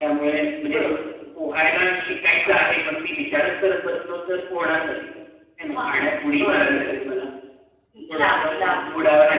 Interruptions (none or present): present